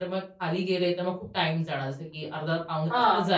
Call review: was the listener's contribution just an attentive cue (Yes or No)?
Yes